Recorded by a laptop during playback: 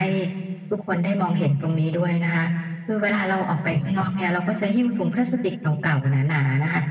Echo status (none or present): present